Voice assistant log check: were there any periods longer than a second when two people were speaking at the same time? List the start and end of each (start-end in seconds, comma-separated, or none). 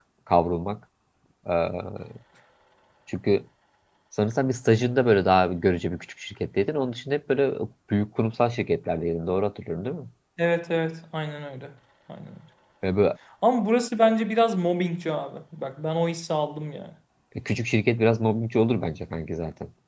none